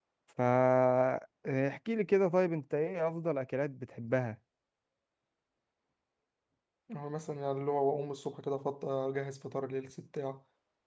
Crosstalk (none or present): none